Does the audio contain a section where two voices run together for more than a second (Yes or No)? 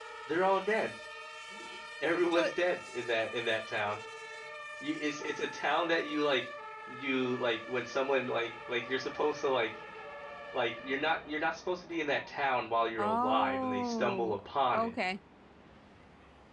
Yes